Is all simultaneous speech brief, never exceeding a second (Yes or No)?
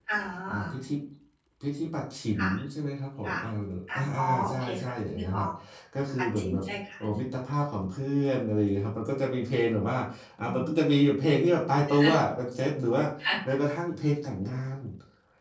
No